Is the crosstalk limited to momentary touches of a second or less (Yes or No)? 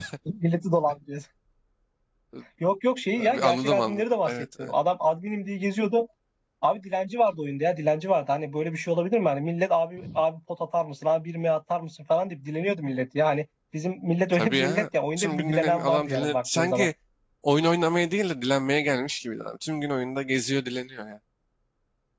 No